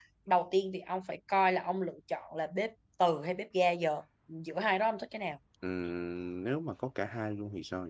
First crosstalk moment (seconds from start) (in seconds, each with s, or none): none